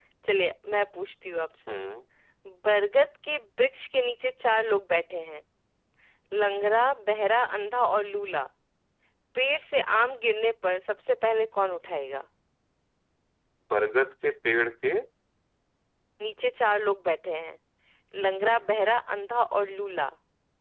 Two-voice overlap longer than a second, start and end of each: none

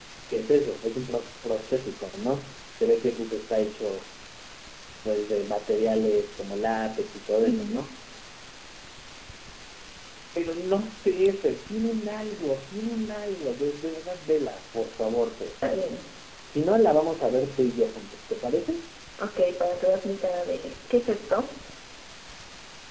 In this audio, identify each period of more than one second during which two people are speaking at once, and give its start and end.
none

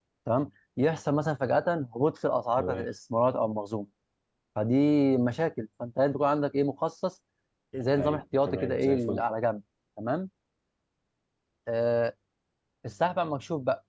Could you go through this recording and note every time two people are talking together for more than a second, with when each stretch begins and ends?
8.0-9.2

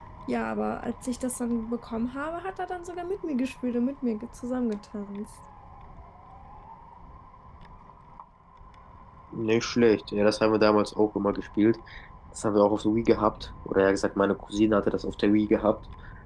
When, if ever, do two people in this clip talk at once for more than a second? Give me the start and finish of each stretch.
none

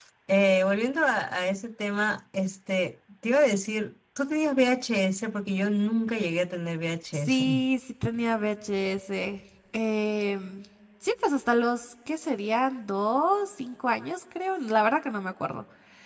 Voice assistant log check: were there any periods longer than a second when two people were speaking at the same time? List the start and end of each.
none

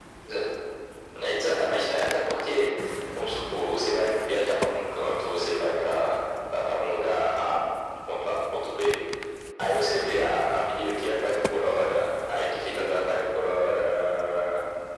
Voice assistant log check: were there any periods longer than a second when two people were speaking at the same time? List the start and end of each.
none

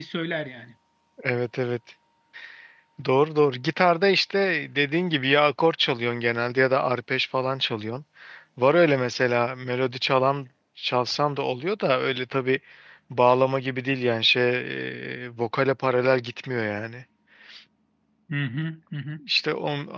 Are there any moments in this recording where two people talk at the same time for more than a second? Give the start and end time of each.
none

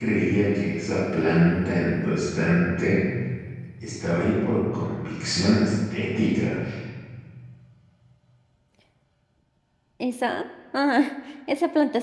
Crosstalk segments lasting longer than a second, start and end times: none

